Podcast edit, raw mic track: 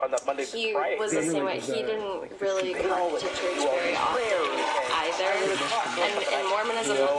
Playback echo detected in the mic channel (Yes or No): Yes